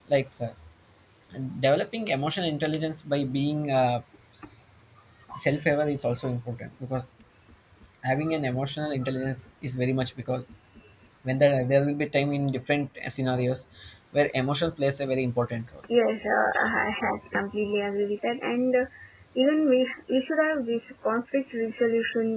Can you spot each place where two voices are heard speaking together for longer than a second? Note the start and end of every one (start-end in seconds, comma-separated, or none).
none